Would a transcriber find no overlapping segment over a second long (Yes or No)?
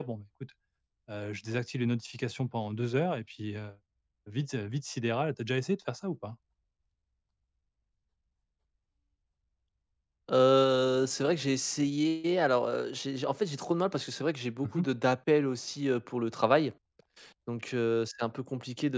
Yes